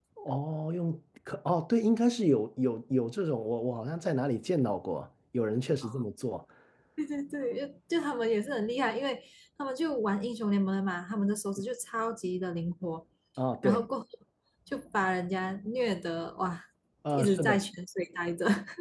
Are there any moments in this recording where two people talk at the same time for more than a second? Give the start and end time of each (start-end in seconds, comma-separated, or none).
none